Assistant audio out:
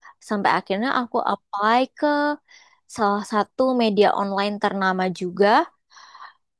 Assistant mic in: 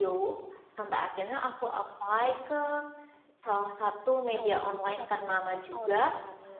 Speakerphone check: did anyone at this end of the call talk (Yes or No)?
Yes